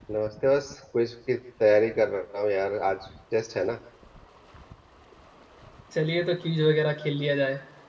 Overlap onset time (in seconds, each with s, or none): none